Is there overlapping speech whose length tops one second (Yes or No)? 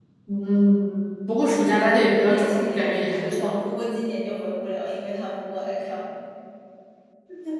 Yes